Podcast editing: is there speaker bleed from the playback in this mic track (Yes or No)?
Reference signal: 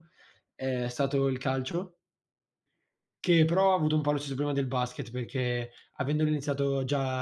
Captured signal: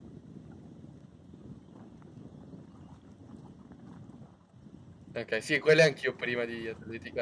No